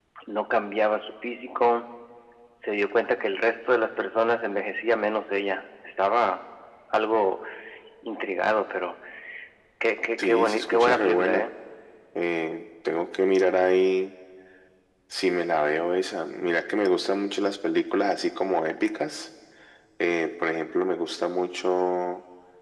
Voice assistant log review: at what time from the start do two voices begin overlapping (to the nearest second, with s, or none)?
10 s